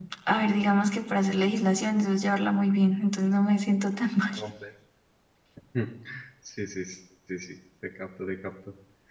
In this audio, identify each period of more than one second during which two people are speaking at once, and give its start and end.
none

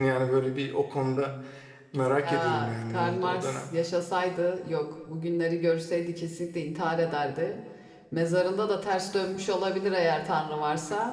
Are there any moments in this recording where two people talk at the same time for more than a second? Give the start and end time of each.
2.2-3.6

